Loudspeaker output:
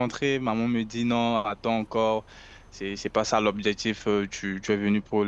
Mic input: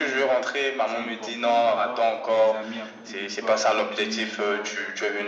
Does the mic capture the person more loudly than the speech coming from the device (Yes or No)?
No